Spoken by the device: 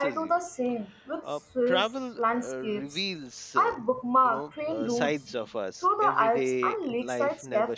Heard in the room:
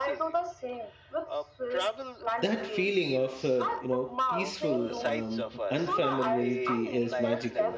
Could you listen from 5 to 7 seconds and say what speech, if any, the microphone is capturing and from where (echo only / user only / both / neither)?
both